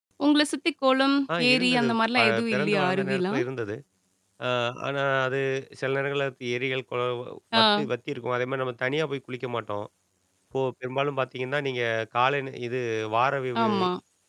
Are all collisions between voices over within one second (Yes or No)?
No